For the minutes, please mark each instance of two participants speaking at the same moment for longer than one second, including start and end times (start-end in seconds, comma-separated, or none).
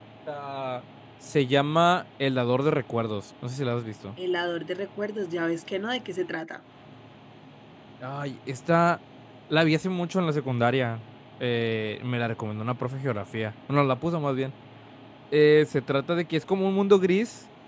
none